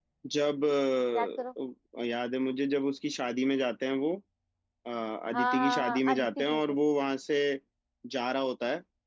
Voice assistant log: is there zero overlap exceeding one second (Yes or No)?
No